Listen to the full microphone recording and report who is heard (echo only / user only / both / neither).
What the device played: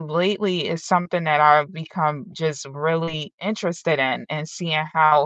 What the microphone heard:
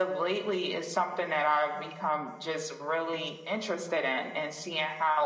echo only